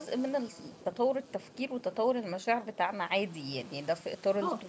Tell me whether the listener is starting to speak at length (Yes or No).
No